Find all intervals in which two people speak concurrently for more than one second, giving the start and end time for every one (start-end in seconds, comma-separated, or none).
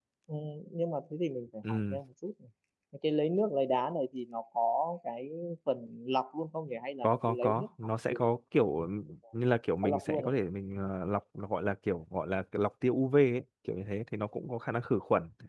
7.0-8.3